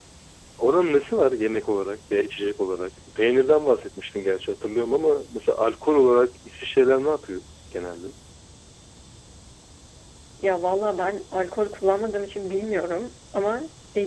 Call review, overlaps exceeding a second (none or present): none